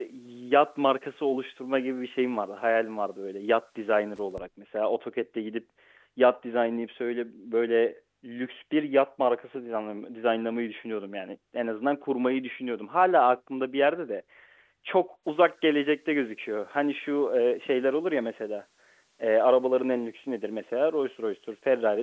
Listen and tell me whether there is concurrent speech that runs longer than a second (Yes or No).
No